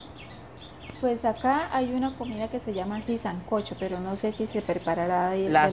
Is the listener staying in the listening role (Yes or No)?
No